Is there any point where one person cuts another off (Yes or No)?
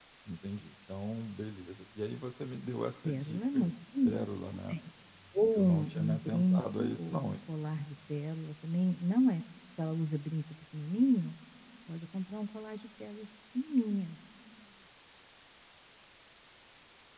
Yes